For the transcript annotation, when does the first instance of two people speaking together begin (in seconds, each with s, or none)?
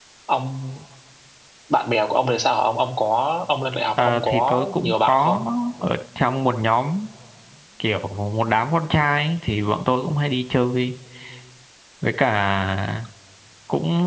4.0 s